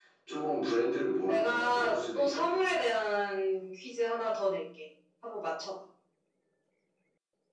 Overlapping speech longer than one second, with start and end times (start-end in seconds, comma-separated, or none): 1.3-2.8